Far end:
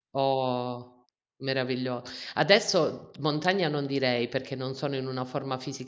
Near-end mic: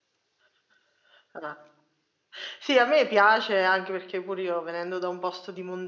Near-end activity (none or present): present